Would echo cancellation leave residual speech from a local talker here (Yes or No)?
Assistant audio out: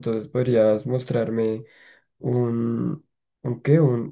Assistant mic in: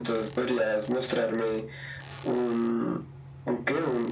No